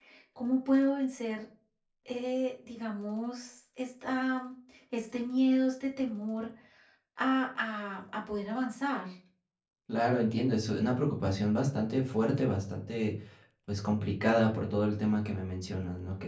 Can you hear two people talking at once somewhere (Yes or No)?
No